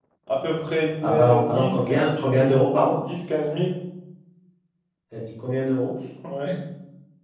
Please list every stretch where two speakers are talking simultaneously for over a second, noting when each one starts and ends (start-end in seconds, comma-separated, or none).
1.0-2.6